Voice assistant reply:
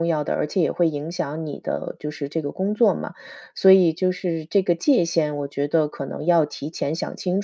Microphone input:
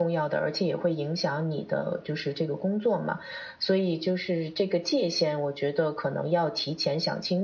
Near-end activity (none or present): none